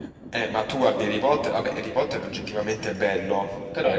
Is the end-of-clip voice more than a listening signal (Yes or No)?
Yes